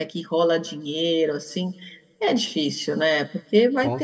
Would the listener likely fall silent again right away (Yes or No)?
Yes